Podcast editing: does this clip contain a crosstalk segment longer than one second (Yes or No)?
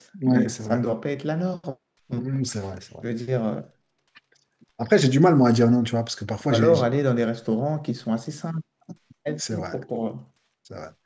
No